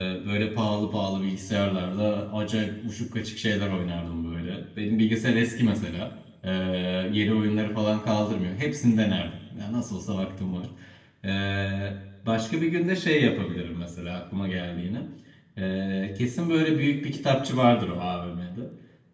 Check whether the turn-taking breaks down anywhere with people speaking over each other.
No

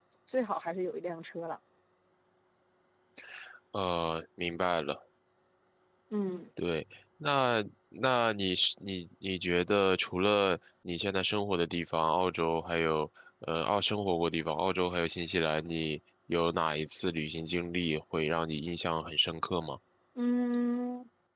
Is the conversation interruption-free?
Yes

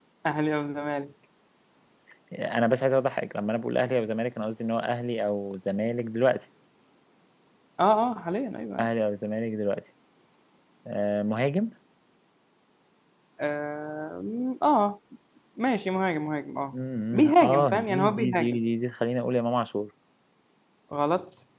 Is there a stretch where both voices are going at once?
Yes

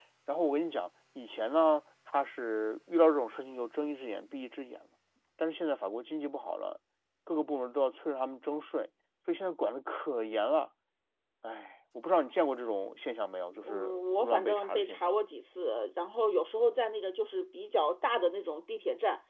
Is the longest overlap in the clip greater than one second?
Yes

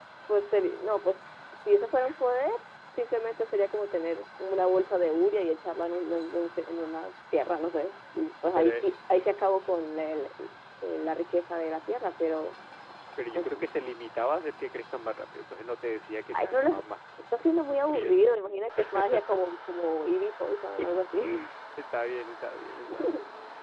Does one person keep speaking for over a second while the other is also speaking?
Yes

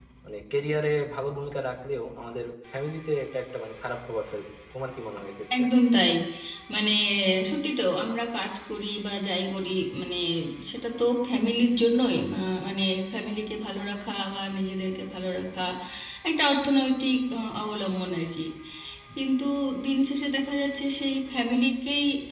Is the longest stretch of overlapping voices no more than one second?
Yes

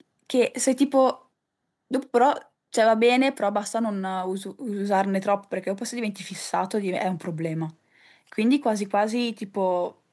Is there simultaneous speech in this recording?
No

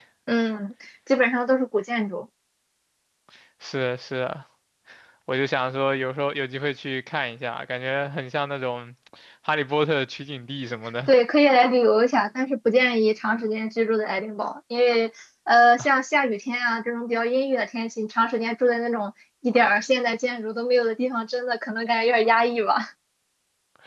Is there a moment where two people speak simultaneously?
No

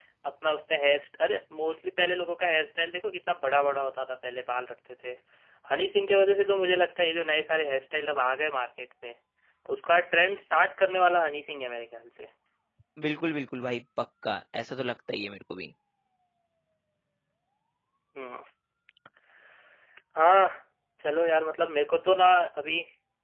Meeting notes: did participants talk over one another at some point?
No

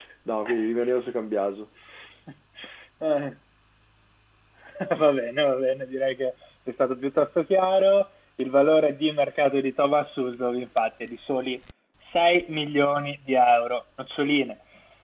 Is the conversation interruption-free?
Yes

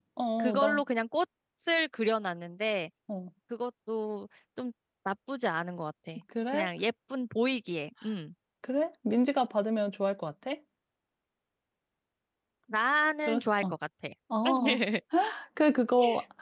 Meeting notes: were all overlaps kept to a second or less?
Yes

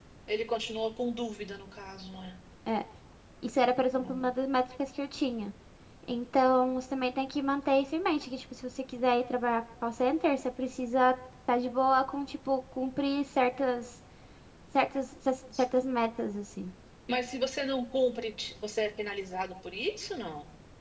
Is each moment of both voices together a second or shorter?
Yes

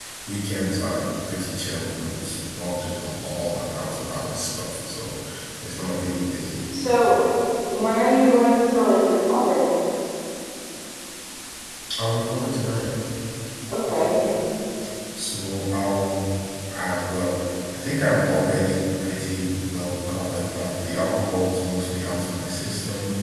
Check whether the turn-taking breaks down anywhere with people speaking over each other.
No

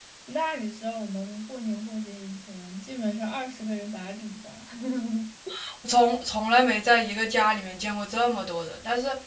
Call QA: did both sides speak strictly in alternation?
Yes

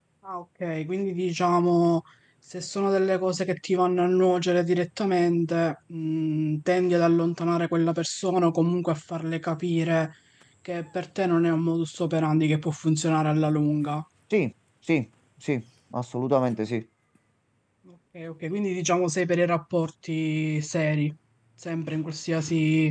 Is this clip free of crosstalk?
Yes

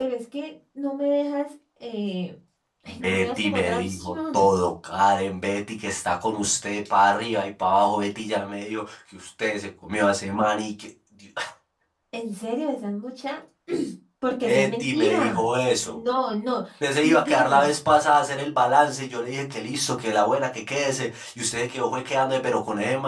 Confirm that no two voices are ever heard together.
No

